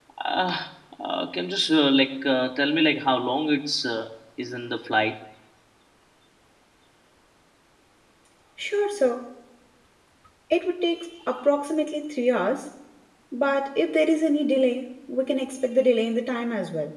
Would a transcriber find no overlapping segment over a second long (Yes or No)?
Yes